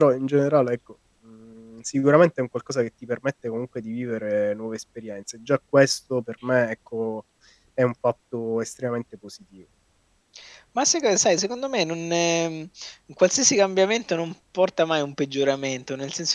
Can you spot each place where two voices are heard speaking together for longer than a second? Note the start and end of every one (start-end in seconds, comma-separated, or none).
none